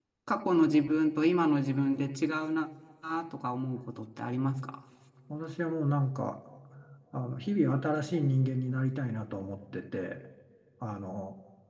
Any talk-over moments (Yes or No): No